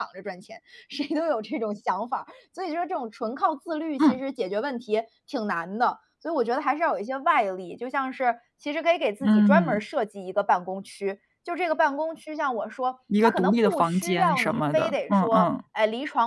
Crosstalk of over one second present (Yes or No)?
Yes